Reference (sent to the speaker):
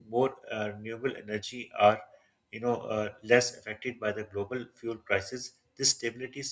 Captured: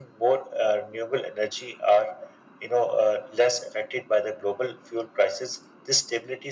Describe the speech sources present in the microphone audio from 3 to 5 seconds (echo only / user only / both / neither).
echo only